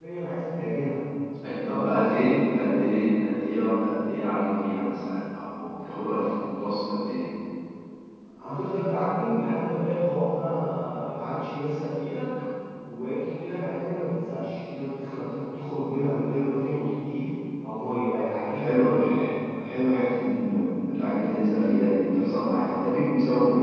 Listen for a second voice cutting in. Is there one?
Yes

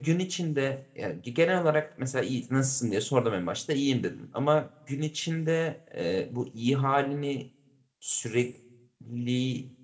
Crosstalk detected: No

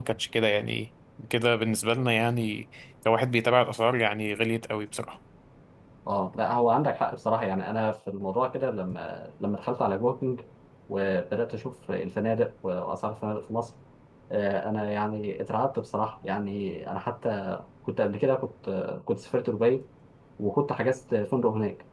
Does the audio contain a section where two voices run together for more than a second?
No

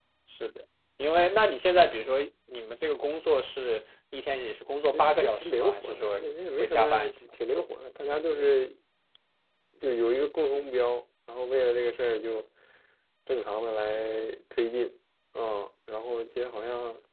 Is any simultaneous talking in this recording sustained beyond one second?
Yes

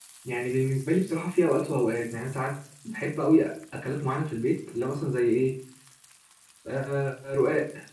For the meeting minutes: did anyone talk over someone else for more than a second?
No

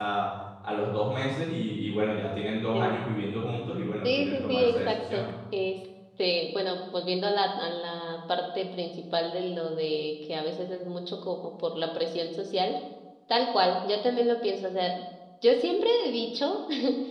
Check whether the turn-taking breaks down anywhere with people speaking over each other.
Yes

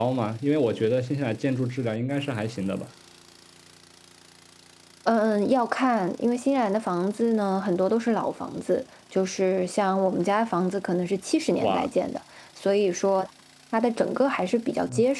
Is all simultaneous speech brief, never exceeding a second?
Yes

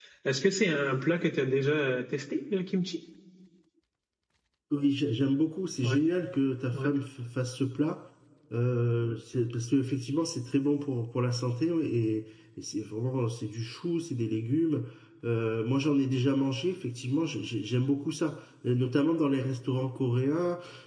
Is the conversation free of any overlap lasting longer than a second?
Yes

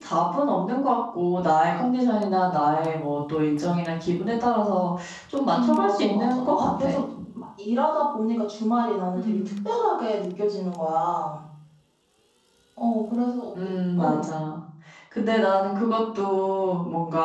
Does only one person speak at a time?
No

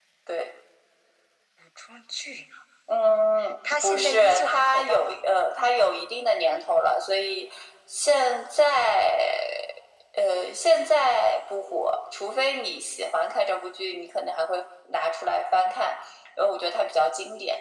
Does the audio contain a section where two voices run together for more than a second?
Yes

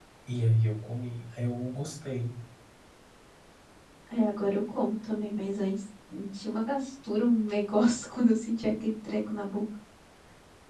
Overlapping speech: No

